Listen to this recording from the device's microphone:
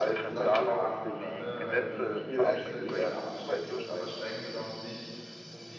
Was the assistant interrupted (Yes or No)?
Yes